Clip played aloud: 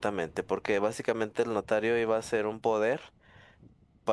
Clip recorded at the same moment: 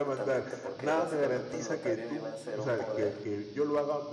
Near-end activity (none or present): present